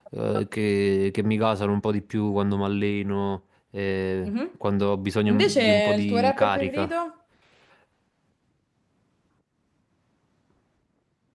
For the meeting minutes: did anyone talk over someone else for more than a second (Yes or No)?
Yes